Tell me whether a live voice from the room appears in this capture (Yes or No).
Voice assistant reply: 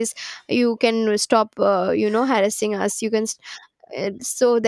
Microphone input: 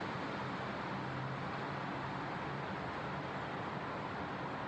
No